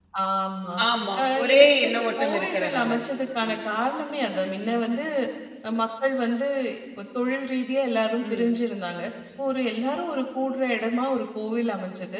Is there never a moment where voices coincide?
No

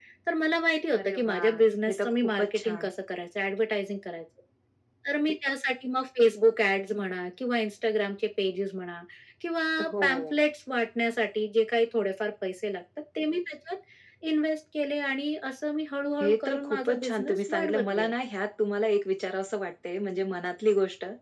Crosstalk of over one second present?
Yes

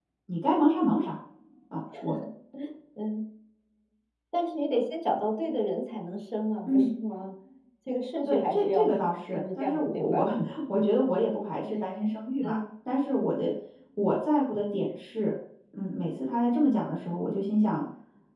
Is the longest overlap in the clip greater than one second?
Yes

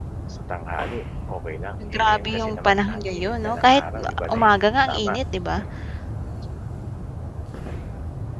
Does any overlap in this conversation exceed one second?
Yes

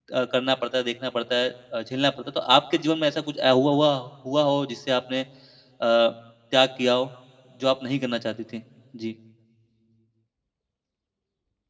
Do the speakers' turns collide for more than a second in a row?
No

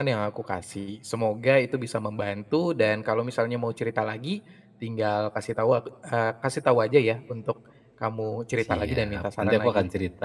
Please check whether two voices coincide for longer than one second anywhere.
Yes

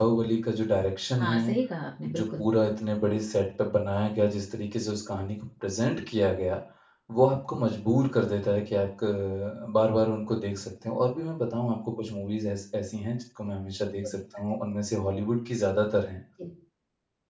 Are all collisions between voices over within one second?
Yes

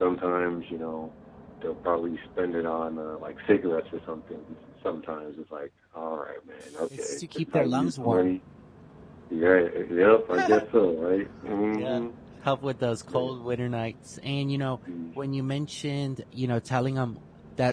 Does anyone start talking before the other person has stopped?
Yes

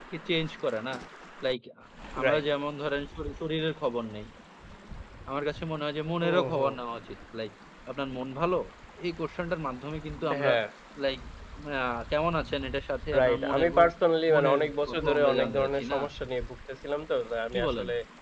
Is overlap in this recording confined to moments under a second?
No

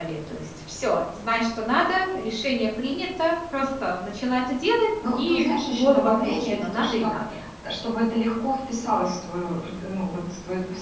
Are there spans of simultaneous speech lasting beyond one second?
Yes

